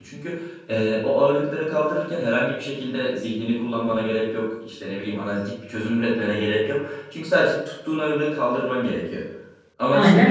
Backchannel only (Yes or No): Yes